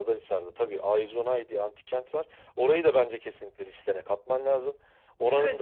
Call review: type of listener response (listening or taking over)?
taking over